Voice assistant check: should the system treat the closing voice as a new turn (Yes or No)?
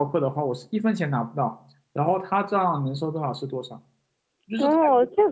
Yes